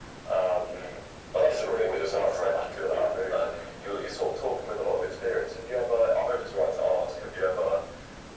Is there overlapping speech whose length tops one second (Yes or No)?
Yes